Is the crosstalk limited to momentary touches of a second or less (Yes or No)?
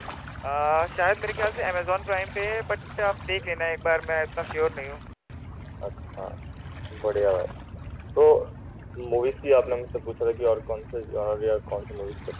Yes